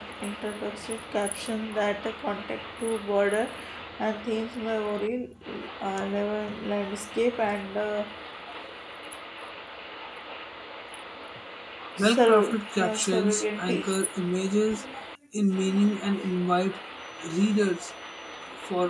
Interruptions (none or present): present